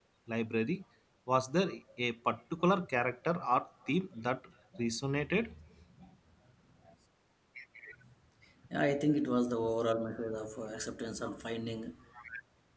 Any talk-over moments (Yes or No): No